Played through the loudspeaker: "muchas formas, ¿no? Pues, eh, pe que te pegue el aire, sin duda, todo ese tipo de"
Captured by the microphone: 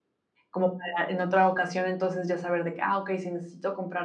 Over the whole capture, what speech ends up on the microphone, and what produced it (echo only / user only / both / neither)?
user only